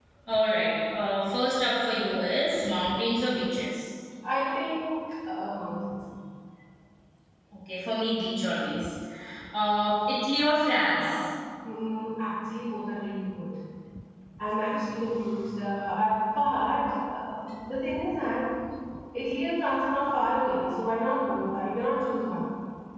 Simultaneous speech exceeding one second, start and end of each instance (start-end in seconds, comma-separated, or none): none